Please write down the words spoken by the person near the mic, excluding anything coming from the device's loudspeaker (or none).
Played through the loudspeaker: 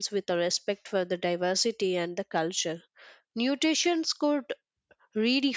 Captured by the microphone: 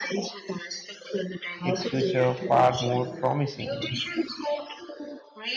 its future far more promising.